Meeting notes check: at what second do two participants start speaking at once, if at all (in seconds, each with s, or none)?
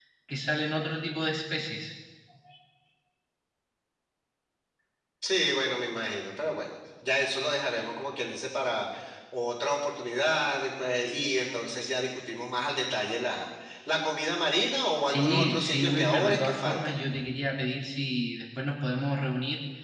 15.1 s